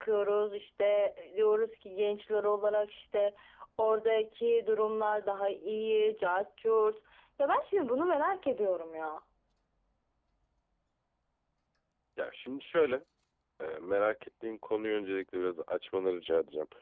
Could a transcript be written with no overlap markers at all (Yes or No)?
Yes